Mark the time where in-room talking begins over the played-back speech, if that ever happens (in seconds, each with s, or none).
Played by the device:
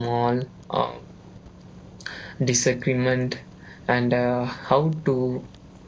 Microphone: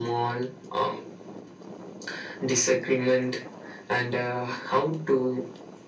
none